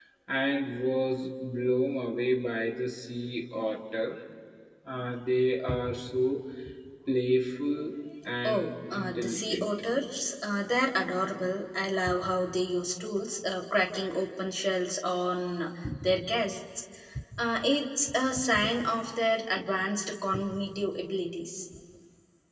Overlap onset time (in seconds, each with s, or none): 8.4 s